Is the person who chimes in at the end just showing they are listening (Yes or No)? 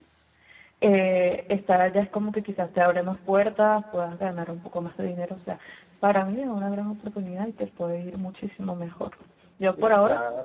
No